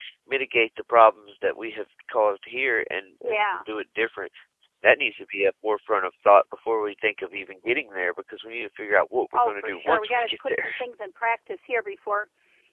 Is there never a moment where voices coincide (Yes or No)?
No